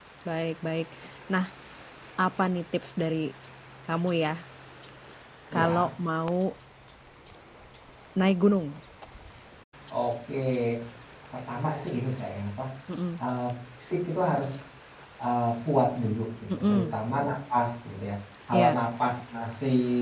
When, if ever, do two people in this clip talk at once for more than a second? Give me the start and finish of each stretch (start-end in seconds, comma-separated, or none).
none